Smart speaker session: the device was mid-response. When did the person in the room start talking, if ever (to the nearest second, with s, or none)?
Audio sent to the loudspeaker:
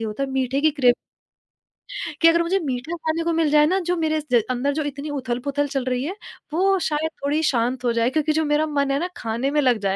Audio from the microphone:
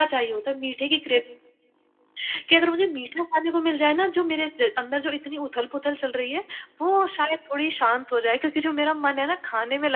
none